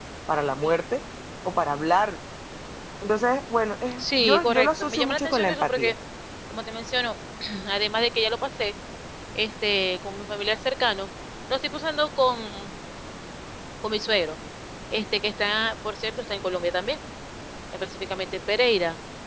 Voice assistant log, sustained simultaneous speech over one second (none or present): present